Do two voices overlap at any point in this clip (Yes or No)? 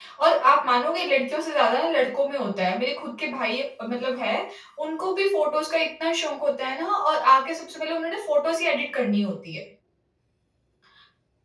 No